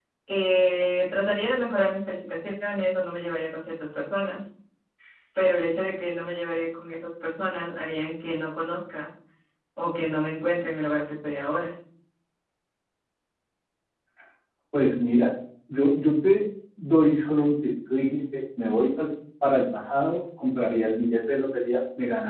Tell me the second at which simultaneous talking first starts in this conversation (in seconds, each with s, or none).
none